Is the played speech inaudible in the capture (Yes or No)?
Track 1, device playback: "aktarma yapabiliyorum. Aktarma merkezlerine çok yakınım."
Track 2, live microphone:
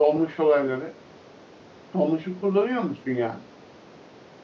Yes